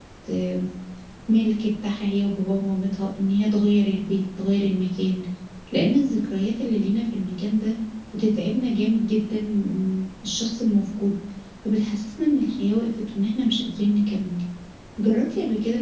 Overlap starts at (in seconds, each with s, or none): none